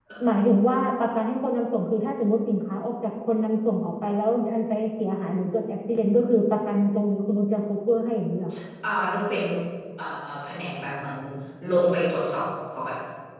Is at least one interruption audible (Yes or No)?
No